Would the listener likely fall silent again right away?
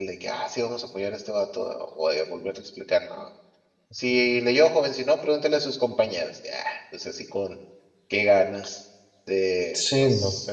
Yes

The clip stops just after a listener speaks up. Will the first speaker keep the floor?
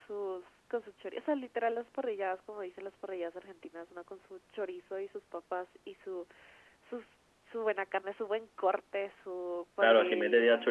No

